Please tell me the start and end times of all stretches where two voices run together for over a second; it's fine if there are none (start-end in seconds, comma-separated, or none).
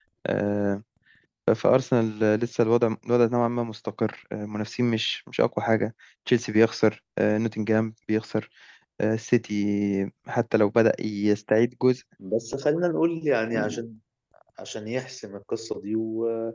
none